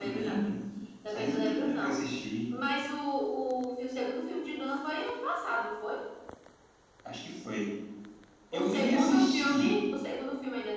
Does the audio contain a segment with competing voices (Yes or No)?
Yes